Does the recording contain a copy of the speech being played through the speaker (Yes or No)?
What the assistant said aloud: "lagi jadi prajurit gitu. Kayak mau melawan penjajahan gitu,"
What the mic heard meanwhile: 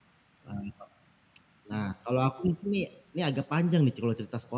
No